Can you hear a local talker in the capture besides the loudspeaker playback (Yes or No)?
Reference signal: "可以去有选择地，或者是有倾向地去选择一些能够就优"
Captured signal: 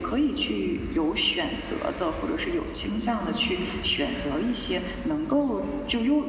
No